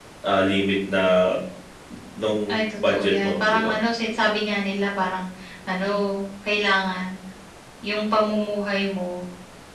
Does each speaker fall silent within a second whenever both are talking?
No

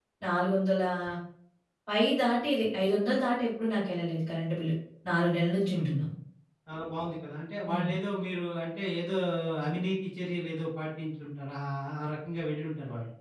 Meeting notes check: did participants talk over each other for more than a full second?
No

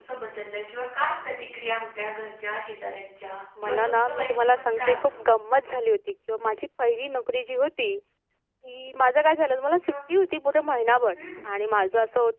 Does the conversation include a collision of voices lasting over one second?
Yes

